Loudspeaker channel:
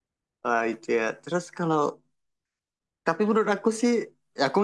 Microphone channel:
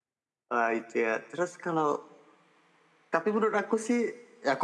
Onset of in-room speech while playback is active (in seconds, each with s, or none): none